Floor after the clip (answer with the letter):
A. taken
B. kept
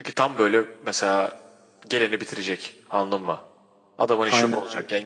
A